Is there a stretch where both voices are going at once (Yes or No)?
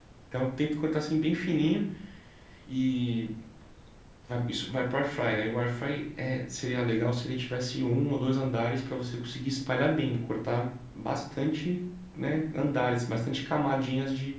No